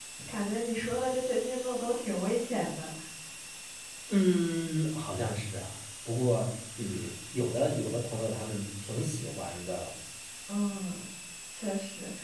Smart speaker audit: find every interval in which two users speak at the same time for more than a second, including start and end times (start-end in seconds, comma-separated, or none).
none